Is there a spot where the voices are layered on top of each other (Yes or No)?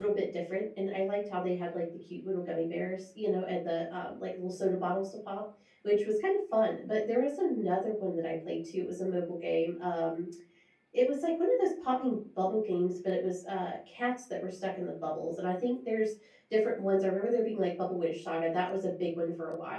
No